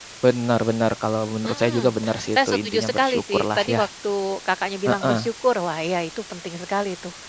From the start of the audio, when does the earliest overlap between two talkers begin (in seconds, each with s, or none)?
1.4 s